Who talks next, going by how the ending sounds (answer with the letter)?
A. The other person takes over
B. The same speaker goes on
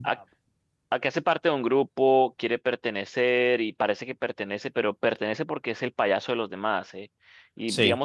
B